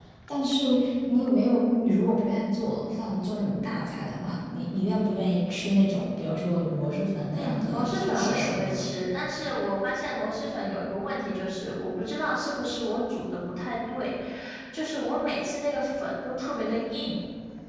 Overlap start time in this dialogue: 7 s

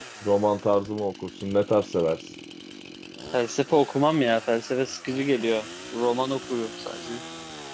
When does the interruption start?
none

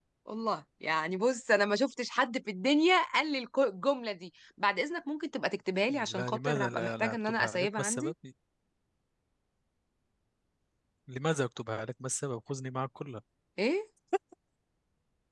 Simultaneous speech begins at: 6 s

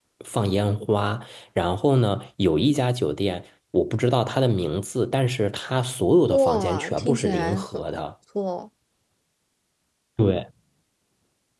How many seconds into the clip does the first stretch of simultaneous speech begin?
6 s

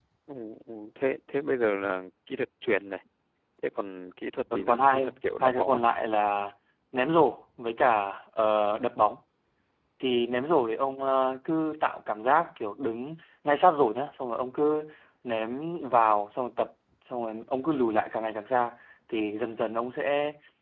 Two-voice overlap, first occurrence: 5 s

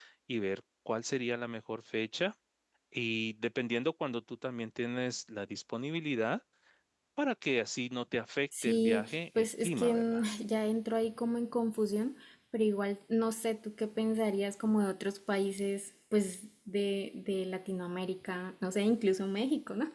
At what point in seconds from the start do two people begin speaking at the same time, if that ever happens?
9 s

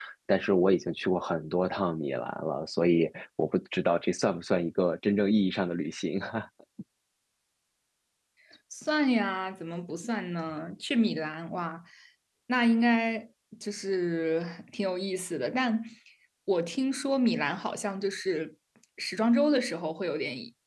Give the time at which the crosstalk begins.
none

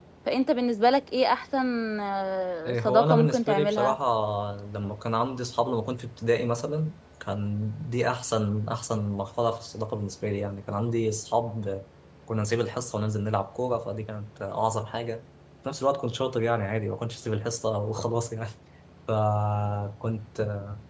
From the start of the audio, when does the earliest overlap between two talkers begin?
3 s

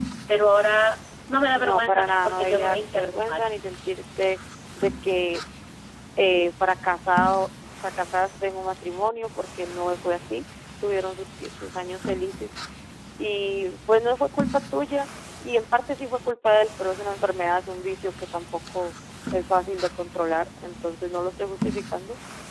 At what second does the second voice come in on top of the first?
2 s

